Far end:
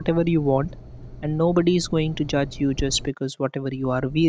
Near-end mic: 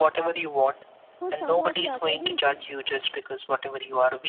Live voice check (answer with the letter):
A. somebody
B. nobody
A